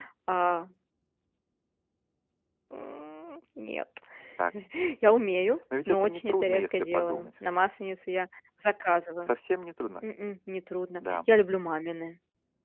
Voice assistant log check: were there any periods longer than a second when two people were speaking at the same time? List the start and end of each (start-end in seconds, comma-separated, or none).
5.9-7.3